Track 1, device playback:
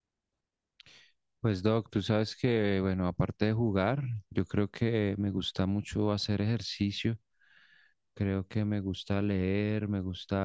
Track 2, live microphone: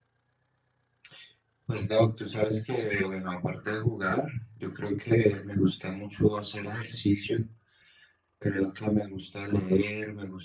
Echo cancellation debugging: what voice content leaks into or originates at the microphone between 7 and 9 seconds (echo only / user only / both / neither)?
echo only